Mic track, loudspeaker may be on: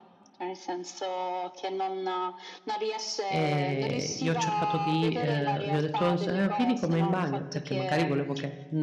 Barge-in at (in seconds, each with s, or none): 3.3 s